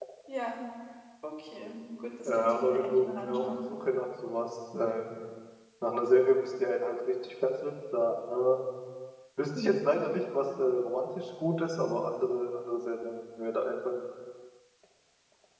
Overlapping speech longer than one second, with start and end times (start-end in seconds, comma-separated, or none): 2.2-3.4